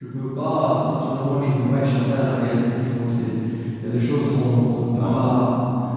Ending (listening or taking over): listening